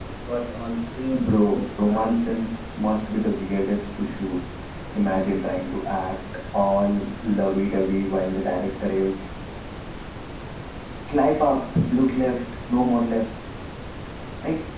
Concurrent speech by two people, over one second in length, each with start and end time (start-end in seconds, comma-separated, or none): 1.1-2.4